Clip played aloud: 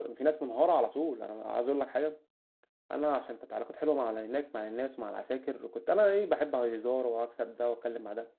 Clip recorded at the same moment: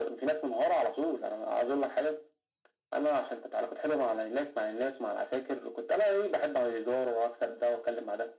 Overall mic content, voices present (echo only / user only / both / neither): echo only